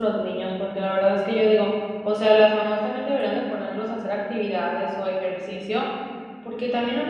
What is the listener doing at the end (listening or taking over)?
listening